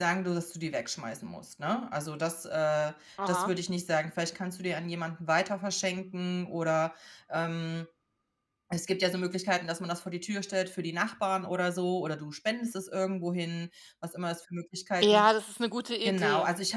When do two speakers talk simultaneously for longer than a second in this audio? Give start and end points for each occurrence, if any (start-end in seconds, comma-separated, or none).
none